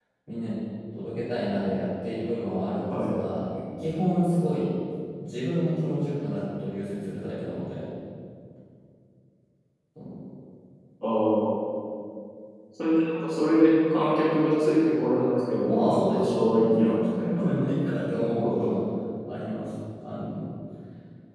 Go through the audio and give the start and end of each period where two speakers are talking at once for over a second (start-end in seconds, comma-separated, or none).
15.6-17.4